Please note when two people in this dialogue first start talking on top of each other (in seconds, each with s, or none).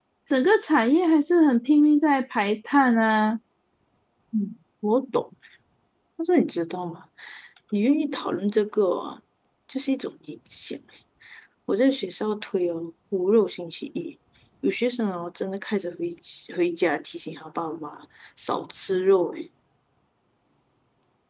none